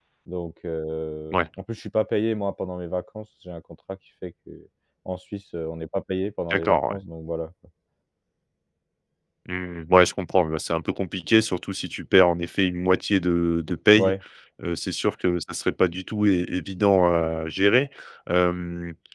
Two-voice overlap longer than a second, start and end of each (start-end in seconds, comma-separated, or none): none